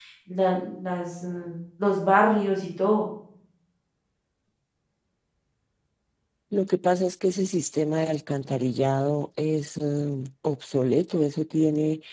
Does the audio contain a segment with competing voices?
No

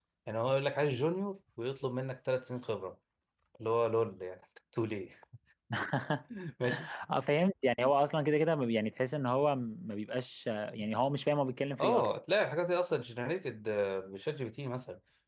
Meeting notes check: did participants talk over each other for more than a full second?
No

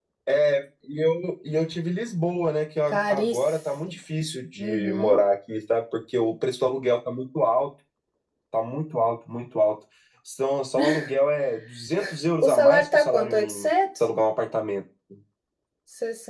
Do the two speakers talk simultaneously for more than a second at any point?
Yes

